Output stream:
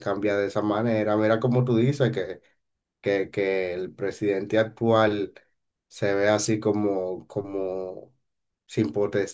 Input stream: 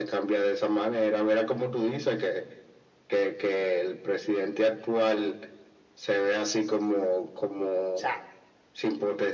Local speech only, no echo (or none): sea,